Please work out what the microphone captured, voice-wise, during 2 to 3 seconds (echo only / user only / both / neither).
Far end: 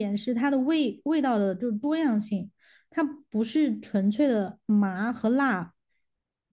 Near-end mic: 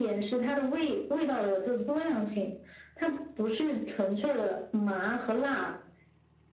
echo only